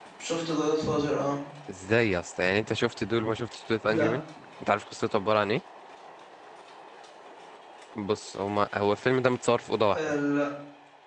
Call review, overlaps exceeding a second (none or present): none